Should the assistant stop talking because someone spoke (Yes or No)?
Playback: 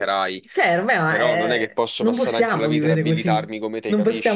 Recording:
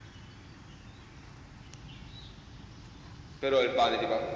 Yes